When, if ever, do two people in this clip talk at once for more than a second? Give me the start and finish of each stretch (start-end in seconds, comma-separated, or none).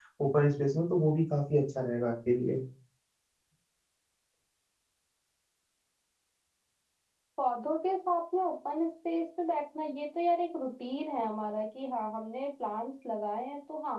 none